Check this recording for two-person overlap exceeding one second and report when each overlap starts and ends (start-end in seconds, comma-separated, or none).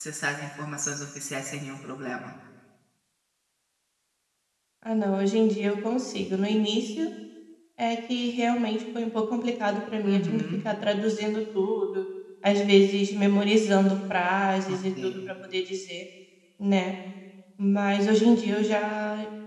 none